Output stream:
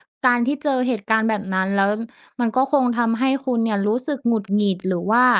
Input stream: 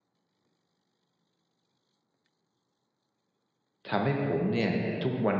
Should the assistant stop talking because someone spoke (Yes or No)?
Yes